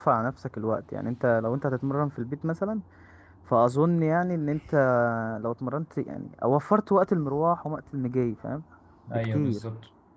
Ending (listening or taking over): taking over